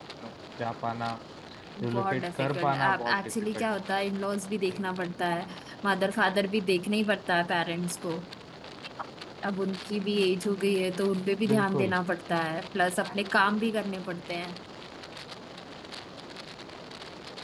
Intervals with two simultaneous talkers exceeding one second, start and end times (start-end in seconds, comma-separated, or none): 1.9-3.7